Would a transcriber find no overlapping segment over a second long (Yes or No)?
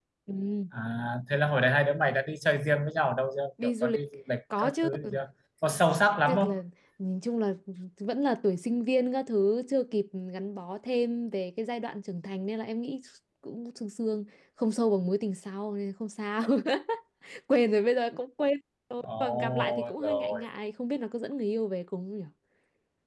No